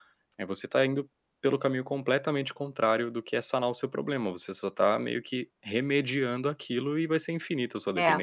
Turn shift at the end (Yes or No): Yes